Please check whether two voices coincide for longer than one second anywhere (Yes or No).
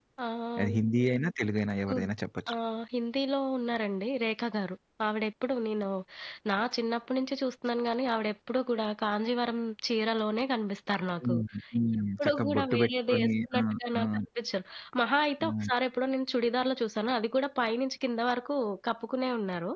Yes